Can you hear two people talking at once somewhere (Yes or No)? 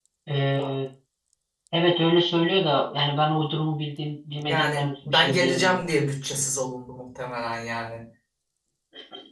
Yes